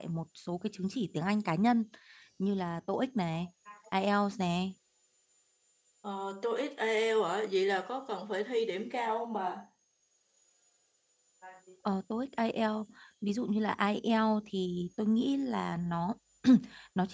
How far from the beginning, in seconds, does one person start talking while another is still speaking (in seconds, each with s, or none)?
none